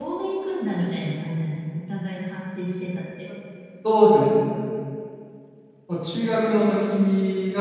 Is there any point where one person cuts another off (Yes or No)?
No